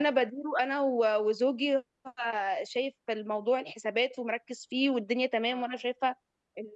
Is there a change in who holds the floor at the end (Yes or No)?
No